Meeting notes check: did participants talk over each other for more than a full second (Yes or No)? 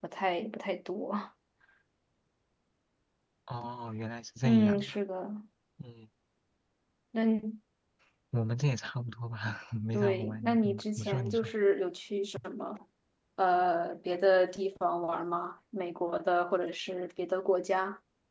Yes